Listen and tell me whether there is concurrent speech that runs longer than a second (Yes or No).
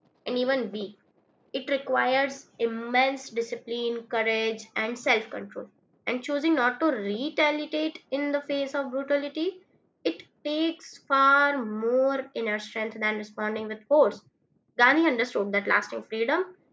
No